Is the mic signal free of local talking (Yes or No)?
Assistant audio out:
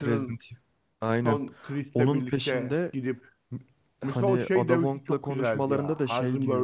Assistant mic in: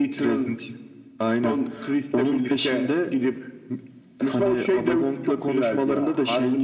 Yes